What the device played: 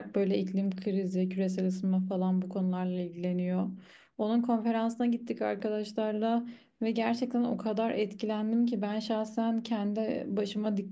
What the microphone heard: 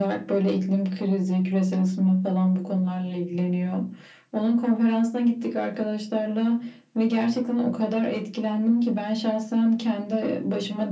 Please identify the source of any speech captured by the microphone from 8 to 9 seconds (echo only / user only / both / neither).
echo only